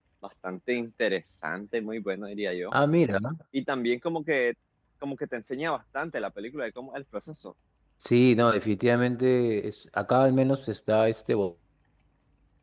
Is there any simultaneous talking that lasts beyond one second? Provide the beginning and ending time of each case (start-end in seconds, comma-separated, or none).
none